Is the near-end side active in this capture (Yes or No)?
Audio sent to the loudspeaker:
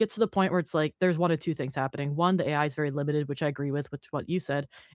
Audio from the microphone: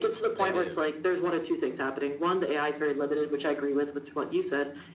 Yes